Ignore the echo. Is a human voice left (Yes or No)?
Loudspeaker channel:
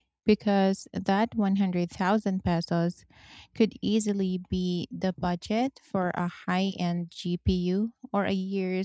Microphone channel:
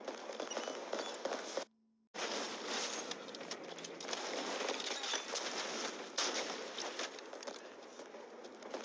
No